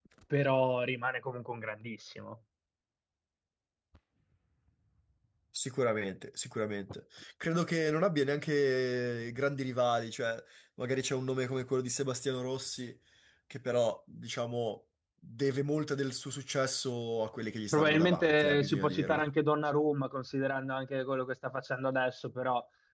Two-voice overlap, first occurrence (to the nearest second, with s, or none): 18 s